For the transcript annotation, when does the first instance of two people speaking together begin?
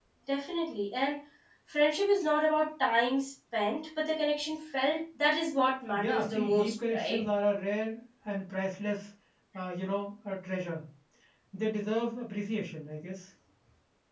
6 s

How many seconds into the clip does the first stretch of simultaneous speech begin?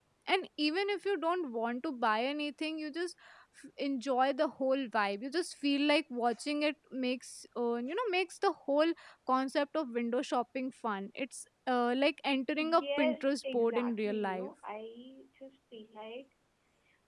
13 s

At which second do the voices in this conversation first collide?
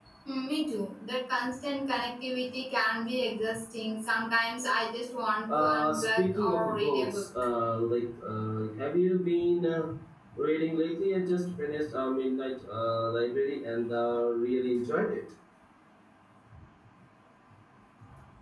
6 s

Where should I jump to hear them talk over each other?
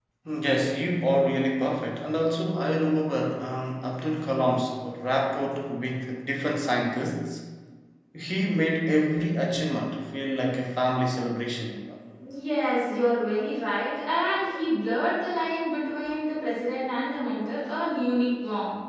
none

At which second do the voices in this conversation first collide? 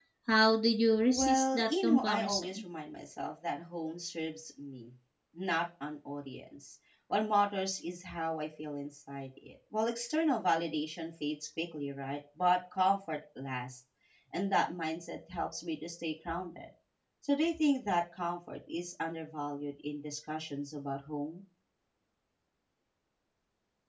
1 s

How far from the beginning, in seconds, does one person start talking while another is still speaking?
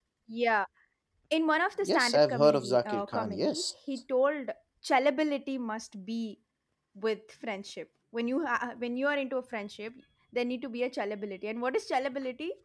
2 s

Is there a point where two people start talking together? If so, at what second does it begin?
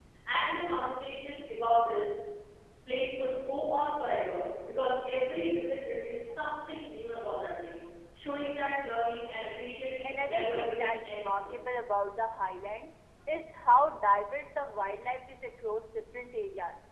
10 s

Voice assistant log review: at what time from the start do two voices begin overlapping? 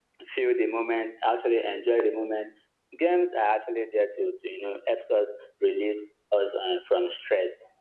none

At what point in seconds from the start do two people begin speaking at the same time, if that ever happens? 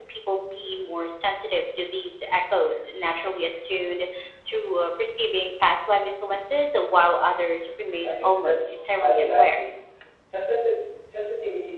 8 s

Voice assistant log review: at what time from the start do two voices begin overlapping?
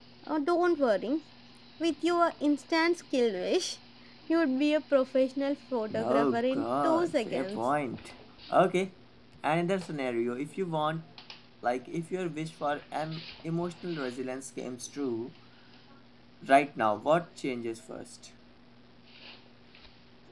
6 s

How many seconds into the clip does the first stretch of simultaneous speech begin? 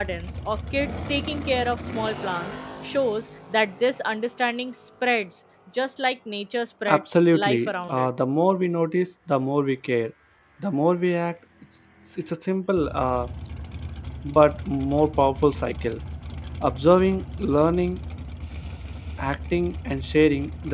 7 s

